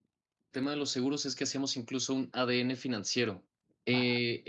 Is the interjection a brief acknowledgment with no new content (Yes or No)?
Yes